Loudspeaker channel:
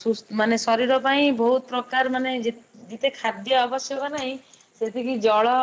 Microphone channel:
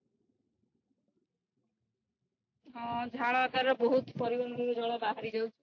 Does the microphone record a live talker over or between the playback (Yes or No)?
Yes